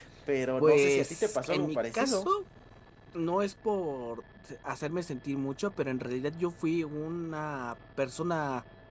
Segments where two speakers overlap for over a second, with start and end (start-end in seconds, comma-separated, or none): 0.6-2.3